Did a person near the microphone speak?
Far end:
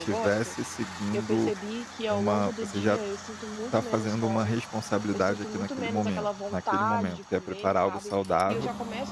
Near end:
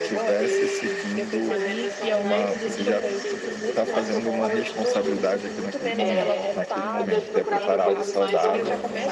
Yes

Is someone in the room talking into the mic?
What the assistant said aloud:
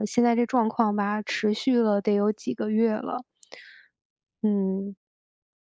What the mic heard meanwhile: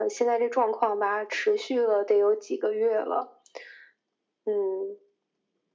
No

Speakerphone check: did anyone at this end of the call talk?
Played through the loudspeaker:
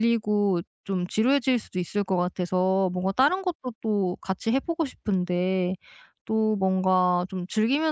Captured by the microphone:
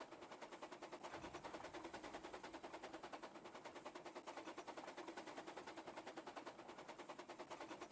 No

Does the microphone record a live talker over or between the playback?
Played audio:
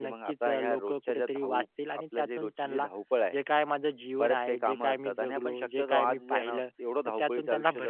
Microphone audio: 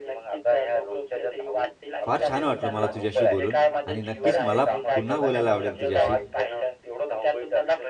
Yes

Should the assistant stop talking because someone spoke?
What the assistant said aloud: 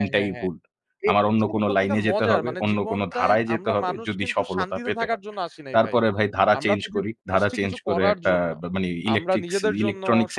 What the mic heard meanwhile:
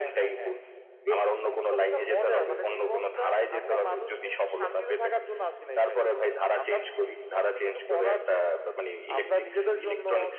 No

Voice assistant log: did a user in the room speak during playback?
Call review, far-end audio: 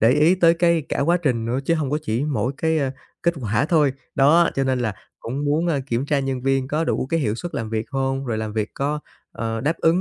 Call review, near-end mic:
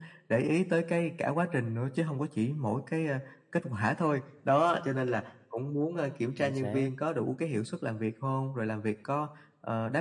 Yes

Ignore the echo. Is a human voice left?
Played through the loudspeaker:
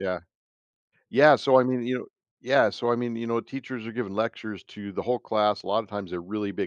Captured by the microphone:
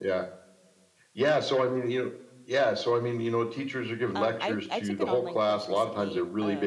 Yes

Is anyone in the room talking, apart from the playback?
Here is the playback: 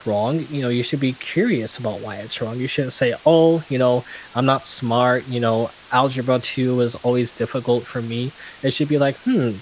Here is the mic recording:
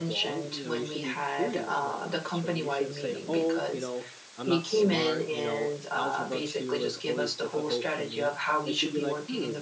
Yes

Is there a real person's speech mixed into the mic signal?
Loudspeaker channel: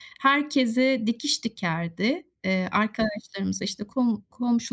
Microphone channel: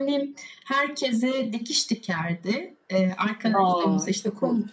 Yes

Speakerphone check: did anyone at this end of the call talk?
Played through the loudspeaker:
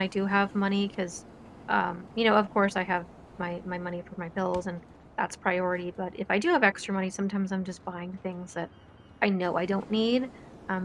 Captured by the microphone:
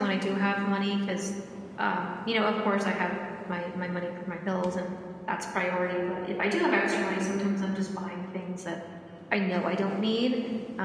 No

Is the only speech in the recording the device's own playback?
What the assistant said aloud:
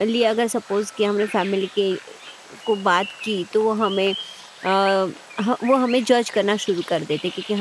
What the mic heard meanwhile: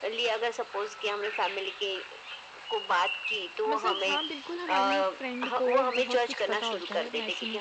No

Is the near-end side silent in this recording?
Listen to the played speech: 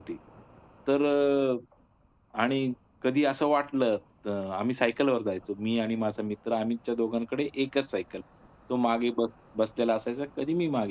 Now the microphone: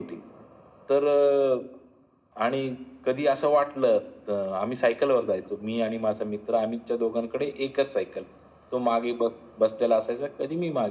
Yes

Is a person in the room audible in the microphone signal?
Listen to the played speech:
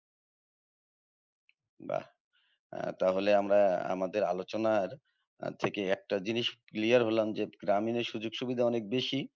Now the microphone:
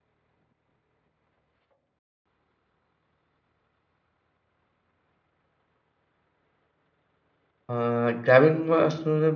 Yes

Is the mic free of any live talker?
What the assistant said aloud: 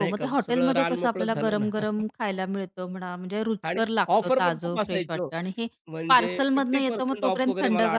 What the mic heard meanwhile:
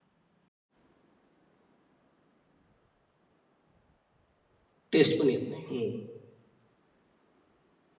No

